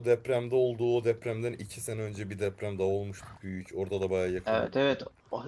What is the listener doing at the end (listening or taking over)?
taking over